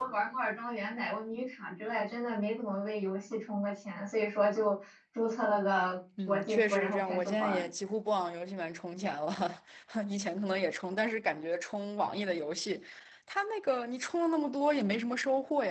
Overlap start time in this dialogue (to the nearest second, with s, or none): 6 s